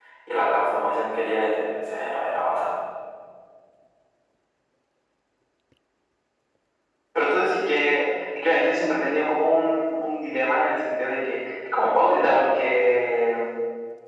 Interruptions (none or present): none